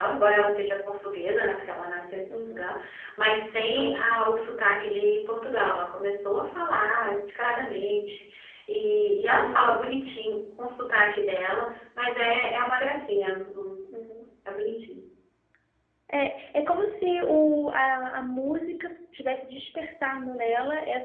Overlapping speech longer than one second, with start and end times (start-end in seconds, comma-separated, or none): none